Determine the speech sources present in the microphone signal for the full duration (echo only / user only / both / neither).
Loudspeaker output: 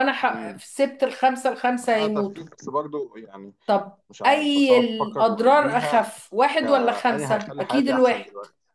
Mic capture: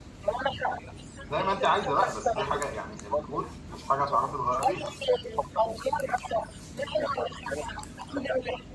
both